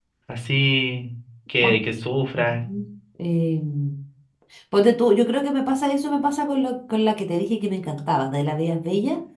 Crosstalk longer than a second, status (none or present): none